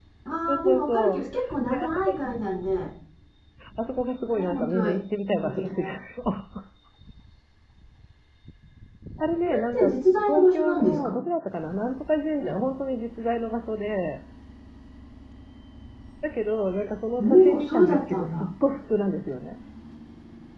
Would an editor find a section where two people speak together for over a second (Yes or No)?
Yes